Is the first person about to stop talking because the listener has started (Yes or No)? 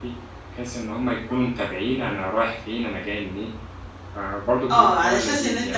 Yes